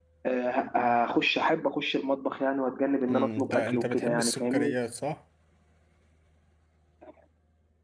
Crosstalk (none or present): present